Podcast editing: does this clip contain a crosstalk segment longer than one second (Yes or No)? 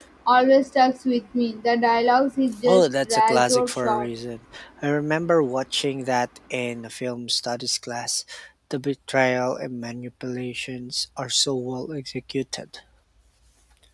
Yes